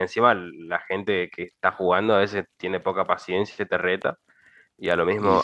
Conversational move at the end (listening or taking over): listening